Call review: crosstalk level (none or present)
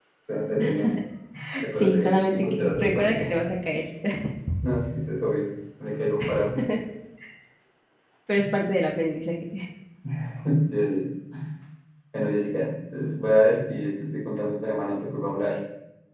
present